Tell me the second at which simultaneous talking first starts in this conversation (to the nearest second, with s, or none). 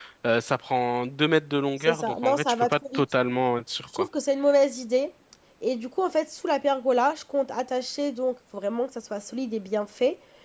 2 s